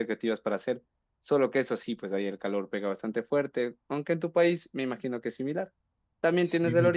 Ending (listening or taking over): listening